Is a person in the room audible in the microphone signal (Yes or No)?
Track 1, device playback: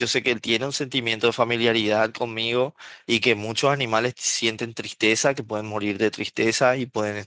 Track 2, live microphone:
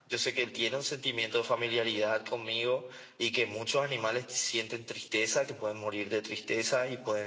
No